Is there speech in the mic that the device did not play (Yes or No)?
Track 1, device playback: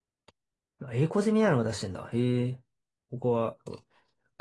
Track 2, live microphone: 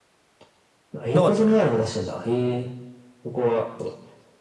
Yes